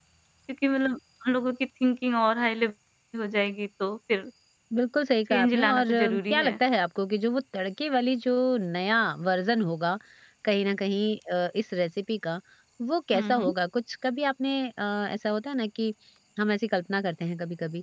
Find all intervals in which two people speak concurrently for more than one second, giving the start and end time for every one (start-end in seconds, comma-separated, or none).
5.3-6.5